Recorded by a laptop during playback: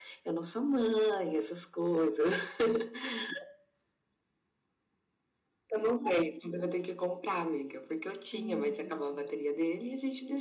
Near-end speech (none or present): present